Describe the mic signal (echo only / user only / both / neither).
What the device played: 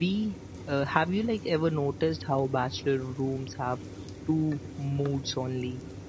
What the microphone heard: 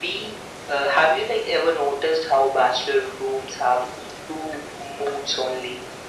echo only